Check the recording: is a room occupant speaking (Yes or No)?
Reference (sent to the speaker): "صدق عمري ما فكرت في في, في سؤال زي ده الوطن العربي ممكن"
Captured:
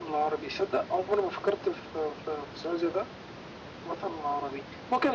No